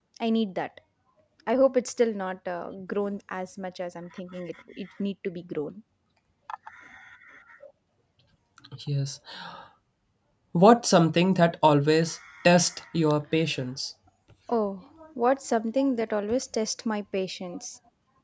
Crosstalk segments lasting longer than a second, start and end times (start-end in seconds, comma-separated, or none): none